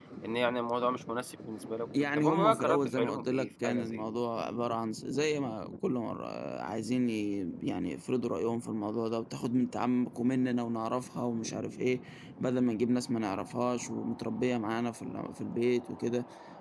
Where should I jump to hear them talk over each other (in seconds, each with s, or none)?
1.9 s